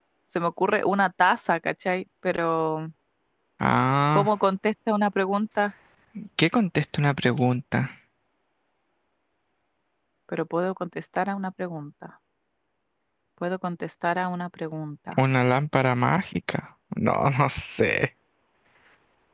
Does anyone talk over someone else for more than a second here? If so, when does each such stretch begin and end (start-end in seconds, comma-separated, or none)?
none